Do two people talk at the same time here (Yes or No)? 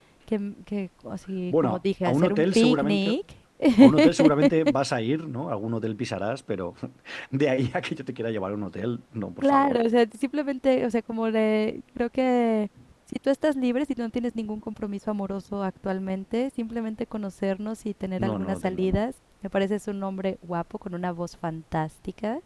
Yes